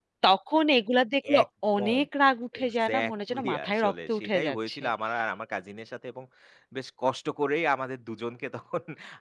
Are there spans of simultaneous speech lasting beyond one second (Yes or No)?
Yes